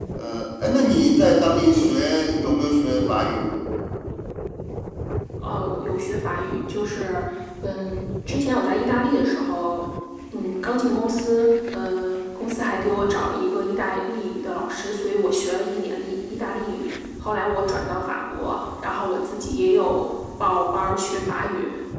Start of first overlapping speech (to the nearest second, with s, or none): none